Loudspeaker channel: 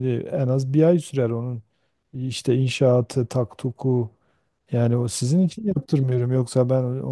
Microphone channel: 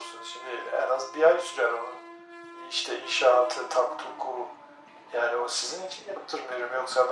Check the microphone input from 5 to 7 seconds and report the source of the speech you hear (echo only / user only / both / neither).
echo only